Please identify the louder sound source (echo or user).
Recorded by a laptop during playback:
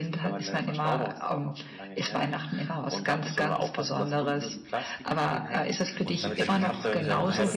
echo